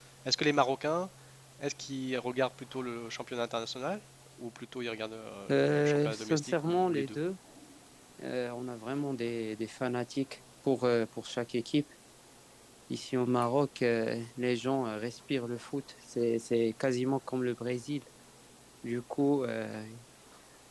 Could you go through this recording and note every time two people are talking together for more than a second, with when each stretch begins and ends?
5.5-7.2

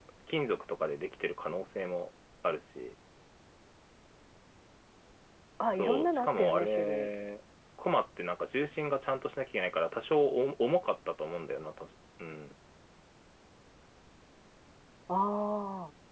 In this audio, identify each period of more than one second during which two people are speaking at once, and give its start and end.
5.8-7.1

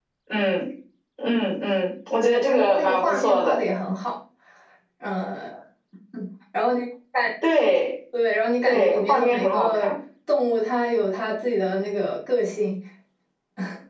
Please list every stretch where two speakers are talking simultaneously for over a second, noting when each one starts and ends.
2.2-3.6, 8.7-9.9

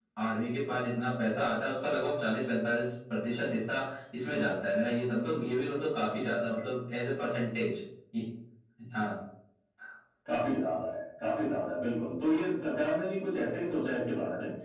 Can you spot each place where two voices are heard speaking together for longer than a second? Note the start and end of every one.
none

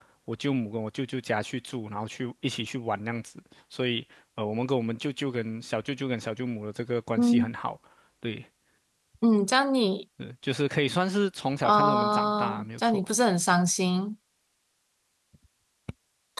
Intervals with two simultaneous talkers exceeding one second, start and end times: 11.6-13.0

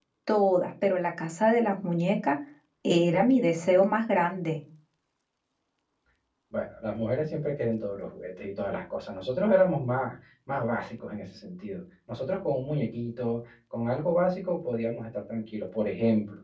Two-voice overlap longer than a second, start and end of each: none

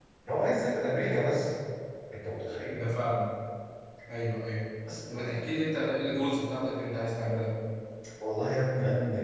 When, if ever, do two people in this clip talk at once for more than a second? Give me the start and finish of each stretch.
none

